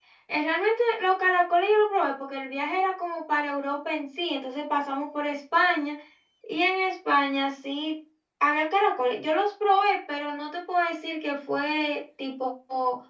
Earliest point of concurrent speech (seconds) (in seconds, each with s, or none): none